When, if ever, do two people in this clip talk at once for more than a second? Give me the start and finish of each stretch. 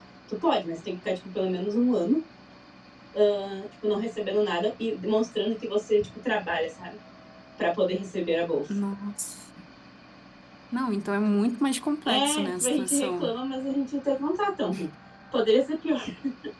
12.1-13.3

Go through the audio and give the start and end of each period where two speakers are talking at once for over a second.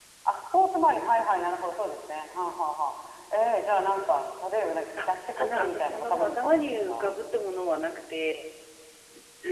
5.0-7.2

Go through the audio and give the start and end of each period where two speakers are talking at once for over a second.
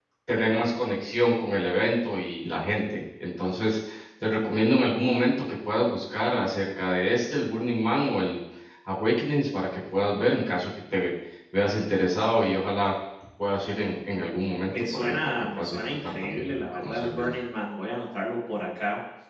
14.7-17.3

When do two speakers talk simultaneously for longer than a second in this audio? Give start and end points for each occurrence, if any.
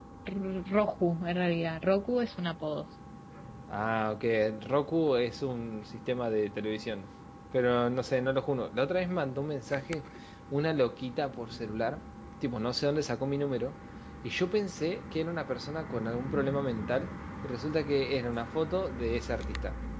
none

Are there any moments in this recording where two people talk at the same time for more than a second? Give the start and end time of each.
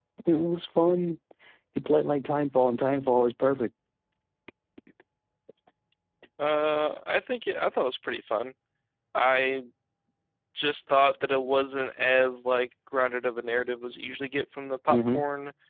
none

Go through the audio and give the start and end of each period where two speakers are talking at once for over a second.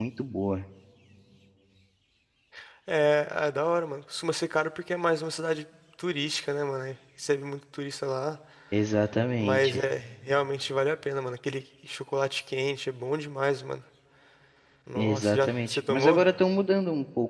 15.0-16.2

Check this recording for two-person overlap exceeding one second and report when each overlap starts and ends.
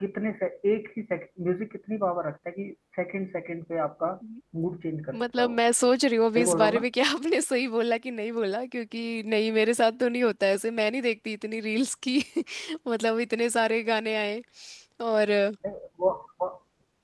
none

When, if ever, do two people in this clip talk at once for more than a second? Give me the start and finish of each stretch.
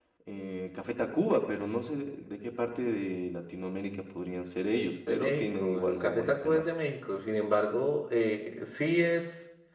5.1-6.7

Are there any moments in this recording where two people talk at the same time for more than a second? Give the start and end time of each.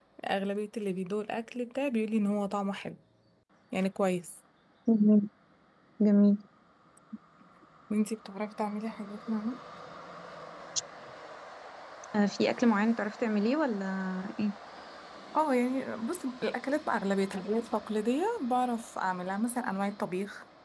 none

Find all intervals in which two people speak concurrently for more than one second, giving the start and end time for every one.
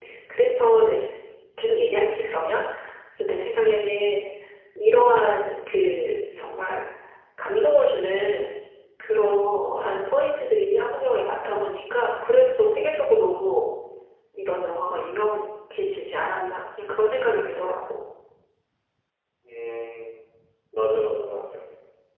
none

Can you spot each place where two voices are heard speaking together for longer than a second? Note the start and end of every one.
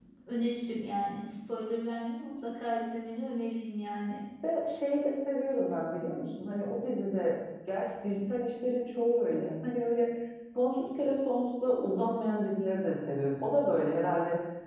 none

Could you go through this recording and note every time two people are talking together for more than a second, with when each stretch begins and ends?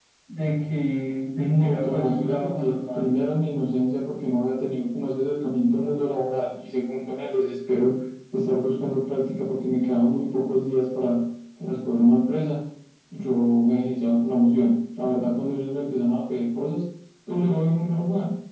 1.4-3.0

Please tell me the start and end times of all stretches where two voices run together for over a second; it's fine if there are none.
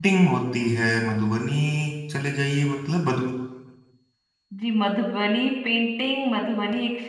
none

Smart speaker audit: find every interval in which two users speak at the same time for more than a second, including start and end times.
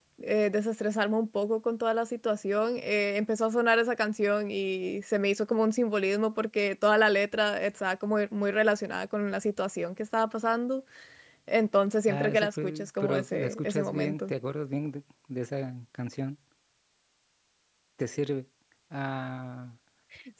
12.1-14.3

